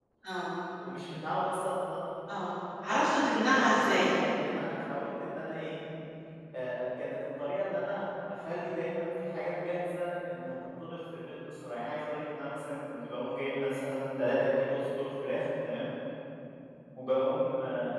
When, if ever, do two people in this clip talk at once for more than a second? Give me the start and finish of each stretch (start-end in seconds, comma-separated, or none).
2.9-4.1